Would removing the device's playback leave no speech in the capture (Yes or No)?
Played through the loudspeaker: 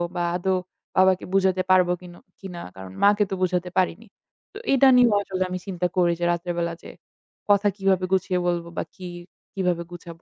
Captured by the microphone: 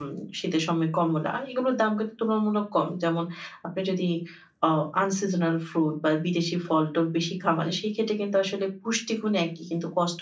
No